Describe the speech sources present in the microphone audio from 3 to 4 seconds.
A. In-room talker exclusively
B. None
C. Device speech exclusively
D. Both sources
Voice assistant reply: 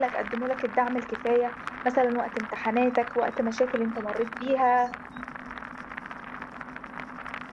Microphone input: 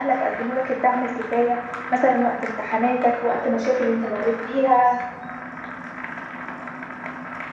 C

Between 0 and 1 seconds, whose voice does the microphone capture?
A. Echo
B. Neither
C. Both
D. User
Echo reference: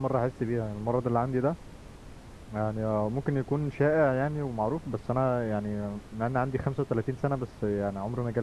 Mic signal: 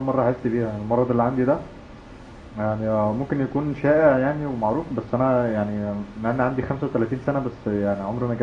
A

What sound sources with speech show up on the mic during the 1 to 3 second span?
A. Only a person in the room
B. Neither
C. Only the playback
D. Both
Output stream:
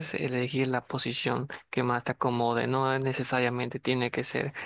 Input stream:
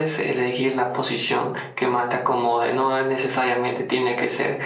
C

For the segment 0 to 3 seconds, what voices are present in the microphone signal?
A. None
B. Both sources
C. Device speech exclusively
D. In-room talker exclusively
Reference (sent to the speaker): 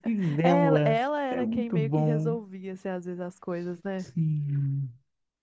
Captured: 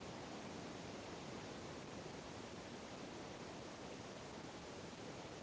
A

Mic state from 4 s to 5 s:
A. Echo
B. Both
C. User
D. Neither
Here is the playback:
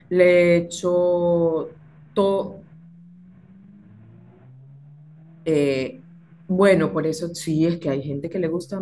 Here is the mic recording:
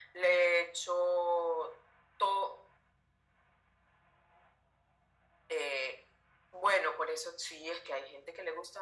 D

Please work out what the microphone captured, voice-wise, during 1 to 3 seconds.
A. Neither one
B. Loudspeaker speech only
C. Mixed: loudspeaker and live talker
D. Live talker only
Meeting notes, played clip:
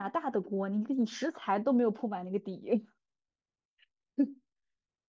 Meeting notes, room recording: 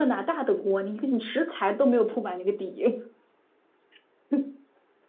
B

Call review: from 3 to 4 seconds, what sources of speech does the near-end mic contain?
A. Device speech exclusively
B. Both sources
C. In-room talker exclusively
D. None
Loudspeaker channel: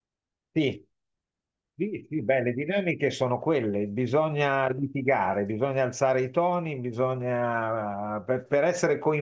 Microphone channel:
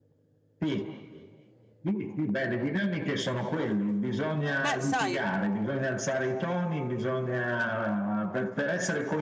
A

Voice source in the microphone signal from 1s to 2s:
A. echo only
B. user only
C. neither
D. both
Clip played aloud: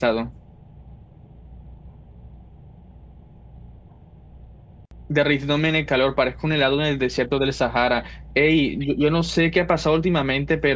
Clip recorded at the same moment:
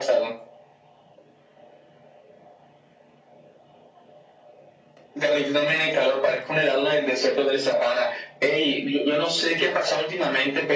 C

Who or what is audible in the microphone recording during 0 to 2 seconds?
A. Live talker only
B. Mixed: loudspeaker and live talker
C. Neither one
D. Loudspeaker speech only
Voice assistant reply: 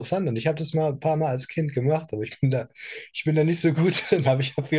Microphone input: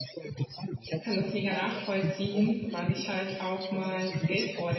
B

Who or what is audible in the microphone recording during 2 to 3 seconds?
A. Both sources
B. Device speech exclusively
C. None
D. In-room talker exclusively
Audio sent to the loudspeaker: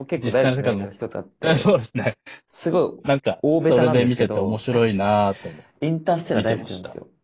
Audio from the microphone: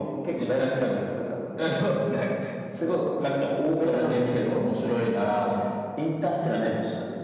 B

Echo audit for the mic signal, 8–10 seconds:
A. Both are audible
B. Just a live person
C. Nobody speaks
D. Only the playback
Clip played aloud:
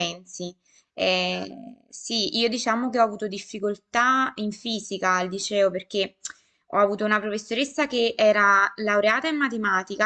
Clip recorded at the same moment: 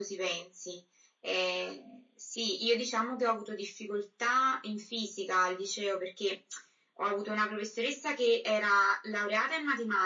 D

